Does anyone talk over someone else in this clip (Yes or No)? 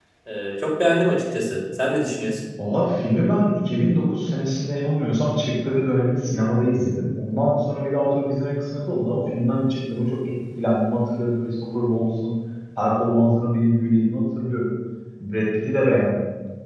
No